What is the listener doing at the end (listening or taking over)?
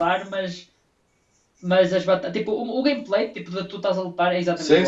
taking over